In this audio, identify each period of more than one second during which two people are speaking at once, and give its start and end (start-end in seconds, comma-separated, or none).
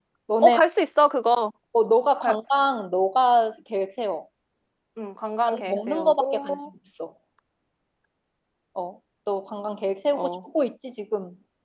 5.5-6.7